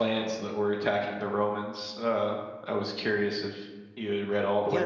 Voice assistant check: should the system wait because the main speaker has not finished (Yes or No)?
No